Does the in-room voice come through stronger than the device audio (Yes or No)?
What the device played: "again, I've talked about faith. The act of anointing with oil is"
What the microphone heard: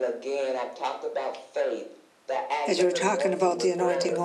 Yes